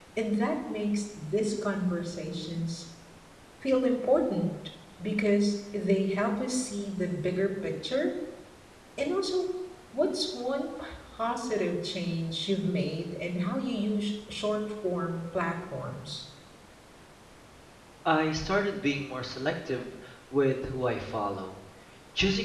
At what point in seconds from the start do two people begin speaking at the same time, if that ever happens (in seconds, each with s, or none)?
none